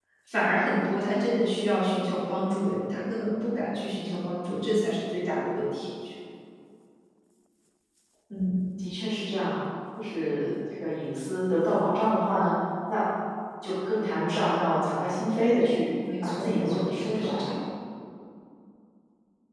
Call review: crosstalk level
present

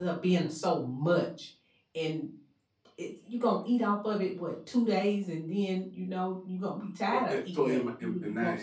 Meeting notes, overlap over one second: present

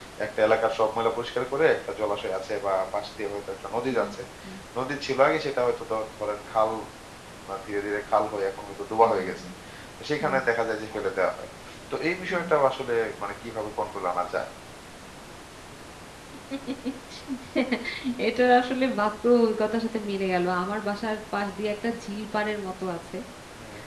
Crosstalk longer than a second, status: none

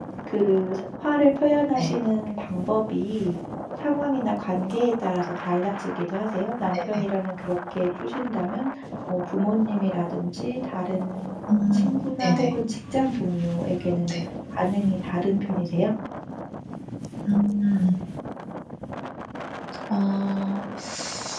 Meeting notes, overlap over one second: none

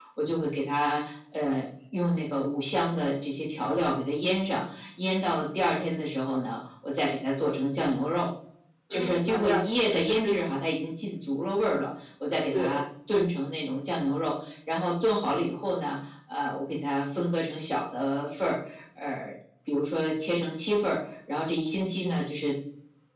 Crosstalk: present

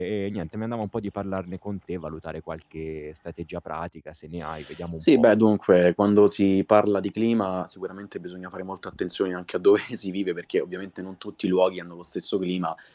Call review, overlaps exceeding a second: none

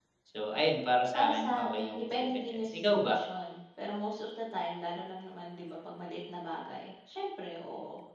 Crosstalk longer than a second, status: present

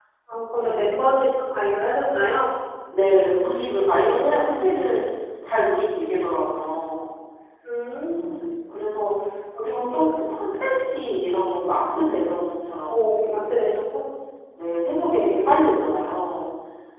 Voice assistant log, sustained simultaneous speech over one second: none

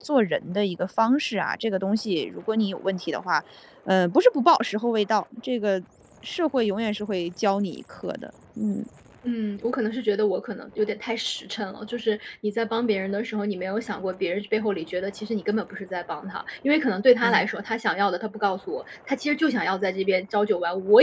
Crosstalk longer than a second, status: none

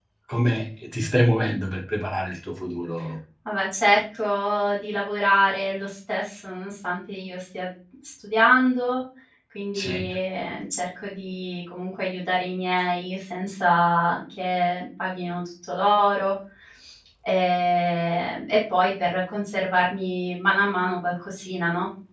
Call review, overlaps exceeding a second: none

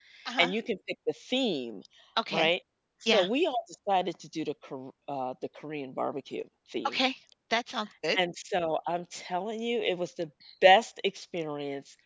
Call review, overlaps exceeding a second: none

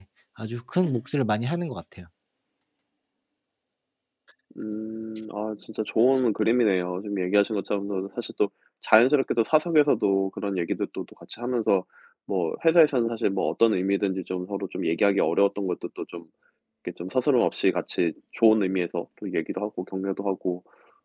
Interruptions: none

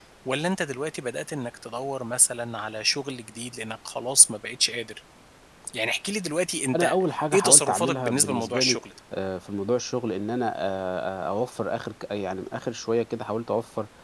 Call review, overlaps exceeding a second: present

